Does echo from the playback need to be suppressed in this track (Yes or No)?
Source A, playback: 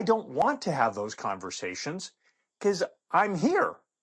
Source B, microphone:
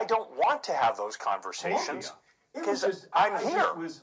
Yes